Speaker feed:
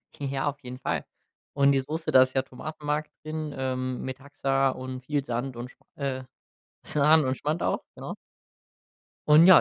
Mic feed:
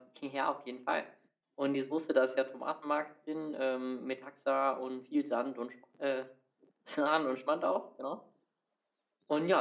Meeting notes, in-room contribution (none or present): none